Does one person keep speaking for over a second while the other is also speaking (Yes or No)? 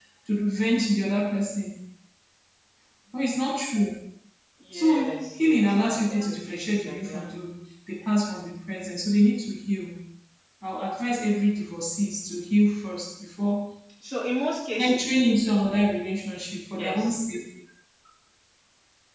Yes